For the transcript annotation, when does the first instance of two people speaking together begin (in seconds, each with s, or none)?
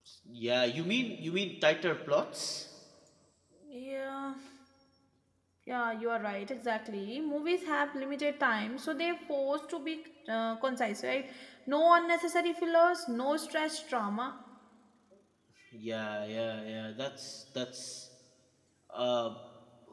none